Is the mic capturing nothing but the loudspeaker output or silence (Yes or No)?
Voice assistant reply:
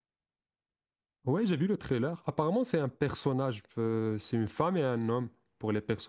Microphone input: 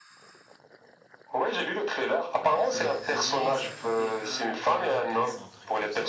No